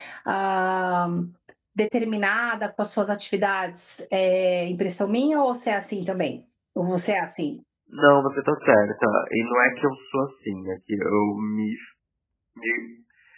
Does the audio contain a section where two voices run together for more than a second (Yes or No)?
No